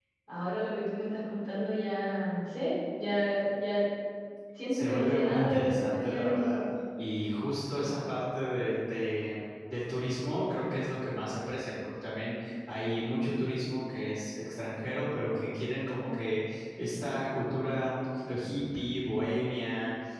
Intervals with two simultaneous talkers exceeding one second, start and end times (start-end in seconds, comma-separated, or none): 4.7-6.6